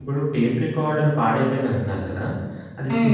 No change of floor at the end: Yes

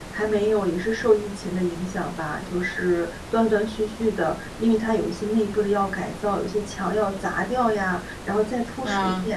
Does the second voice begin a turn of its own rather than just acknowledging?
No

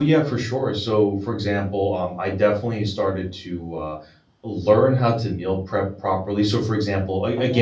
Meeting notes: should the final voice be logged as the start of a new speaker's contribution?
No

